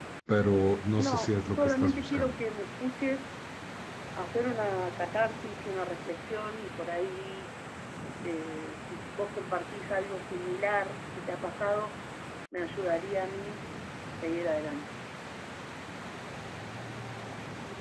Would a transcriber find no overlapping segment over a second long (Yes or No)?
No